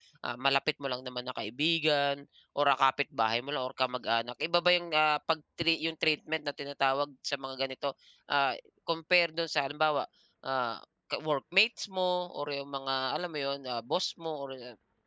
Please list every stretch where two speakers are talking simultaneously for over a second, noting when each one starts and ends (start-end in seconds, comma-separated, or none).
none